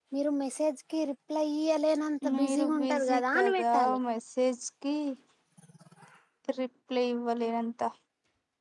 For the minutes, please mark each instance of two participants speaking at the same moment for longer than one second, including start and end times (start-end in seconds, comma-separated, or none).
2.3-4.0